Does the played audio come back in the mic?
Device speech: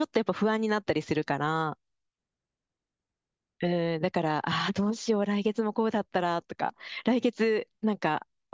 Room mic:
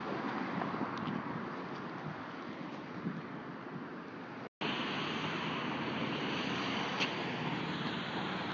No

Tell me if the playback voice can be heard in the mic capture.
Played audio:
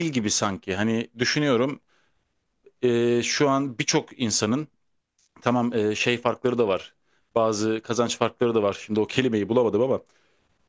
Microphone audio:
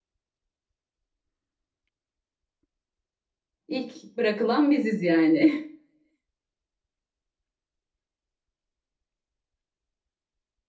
No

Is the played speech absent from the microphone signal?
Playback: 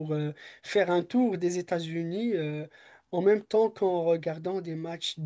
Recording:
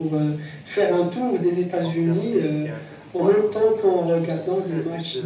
No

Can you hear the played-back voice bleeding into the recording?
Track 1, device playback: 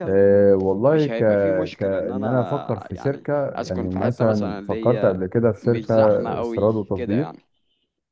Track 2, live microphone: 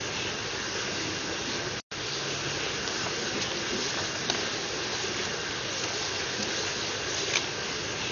No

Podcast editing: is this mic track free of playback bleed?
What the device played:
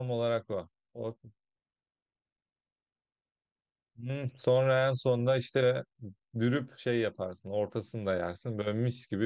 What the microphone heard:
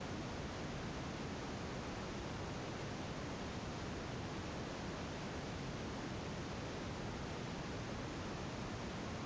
Yes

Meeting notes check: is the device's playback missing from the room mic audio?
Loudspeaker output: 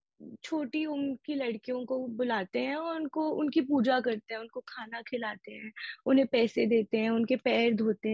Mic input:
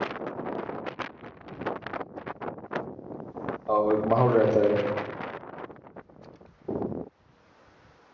Yes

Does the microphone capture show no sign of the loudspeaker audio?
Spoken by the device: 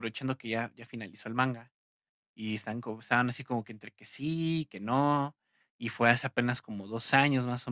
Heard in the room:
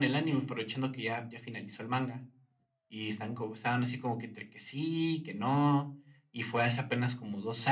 No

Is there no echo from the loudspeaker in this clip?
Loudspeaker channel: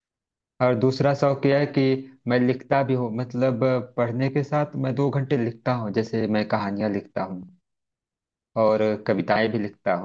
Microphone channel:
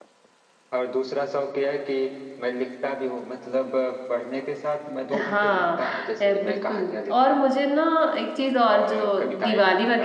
No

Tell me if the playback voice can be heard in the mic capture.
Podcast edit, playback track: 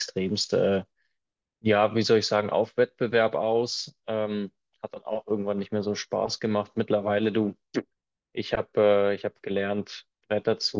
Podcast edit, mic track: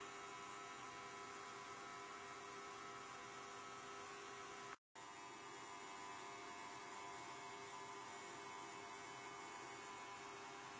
No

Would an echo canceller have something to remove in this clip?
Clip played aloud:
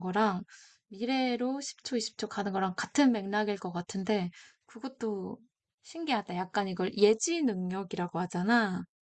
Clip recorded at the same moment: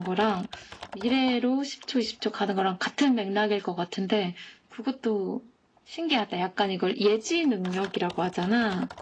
Yes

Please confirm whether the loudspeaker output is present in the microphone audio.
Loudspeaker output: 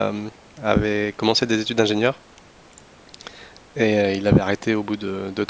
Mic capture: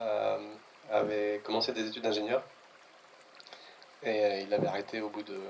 Yes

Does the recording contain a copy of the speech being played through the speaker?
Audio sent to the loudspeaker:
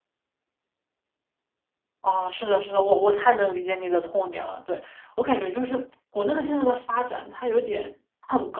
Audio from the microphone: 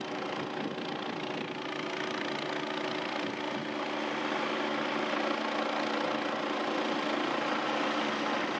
No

